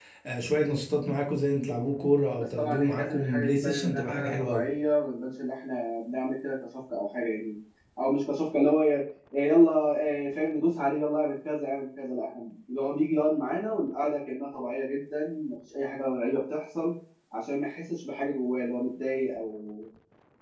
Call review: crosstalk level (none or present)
present